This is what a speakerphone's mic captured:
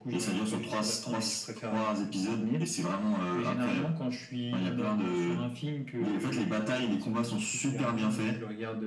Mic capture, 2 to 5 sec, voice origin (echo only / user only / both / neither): echo only